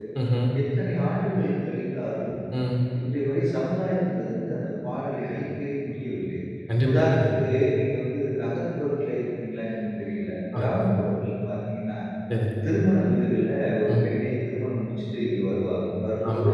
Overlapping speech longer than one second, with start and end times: none

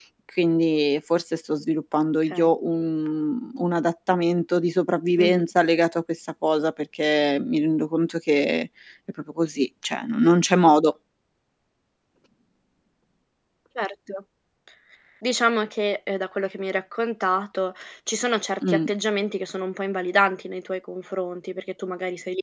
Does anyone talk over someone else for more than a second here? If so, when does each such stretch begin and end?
none

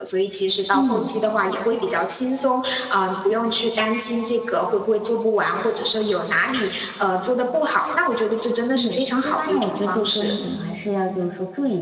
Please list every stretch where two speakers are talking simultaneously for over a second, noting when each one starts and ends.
8.8-10.3

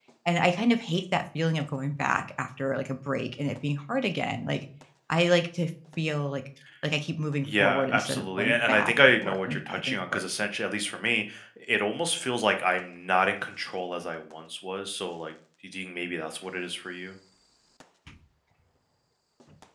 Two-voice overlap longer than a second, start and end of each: 7.4-10.2

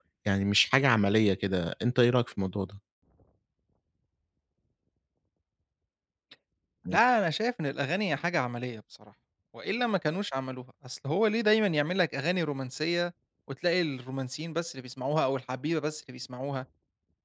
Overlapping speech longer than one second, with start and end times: none

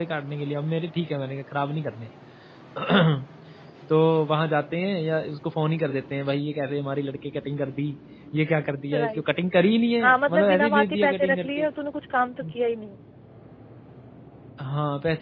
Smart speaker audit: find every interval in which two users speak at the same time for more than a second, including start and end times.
10.0-11.7

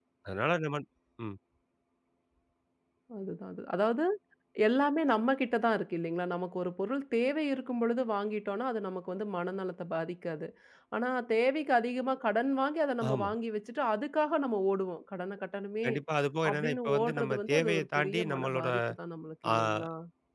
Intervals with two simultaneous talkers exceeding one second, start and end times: 16.5-18.7

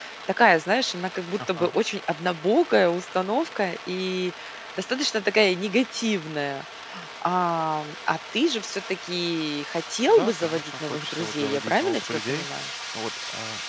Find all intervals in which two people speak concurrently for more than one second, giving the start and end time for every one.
10.1-12.5

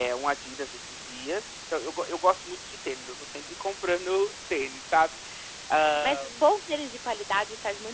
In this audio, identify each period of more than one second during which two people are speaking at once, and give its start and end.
none

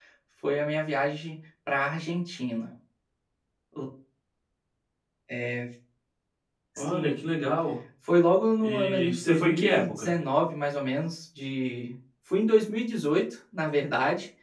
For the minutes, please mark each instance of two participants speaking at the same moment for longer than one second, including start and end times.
8.6-10.1

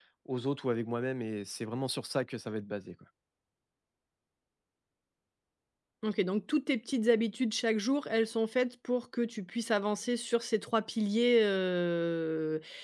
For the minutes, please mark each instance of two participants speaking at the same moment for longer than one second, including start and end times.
none

